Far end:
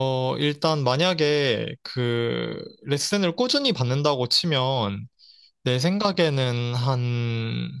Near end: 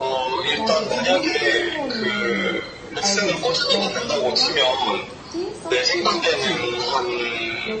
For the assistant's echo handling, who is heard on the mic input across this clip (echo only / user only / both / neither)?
both